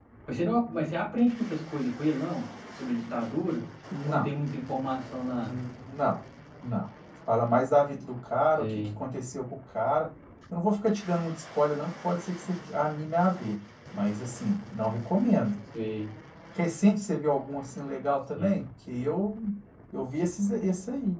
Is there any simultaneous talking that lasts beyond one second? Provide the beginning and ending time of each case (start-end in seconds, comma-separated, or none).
none